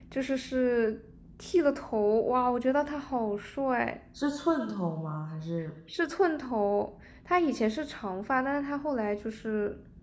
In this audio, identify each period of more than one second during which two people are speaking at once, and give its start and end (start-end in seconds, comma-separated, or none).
none